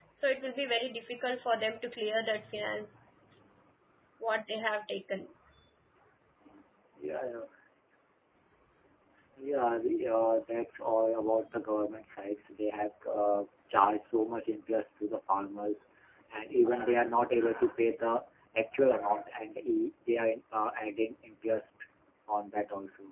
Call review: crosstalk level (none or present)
none